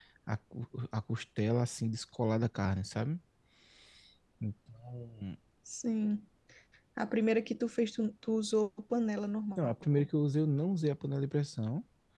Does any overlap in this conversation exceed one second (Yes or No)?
No